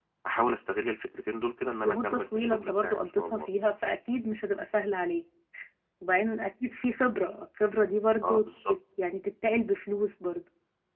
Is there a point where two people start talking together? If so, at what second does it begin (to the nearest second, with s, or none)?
2 s